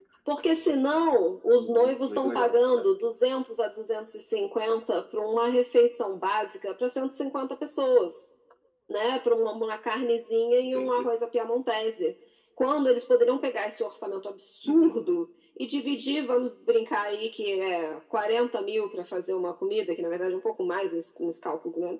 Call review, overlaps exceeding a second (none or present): present